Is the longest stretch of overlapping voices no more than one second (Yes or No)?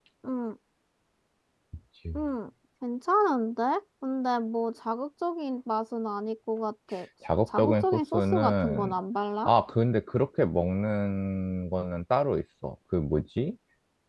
No